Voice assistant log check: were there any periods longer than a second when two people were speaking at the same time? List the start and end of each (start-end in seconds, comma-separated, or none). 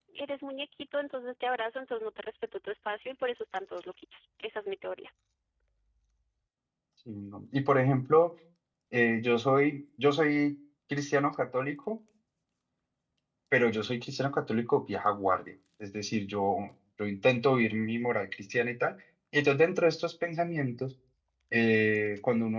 none